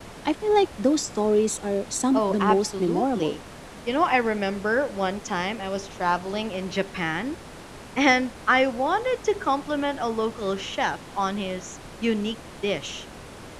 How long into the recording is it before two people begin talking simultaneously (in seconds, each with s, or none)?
2.1 s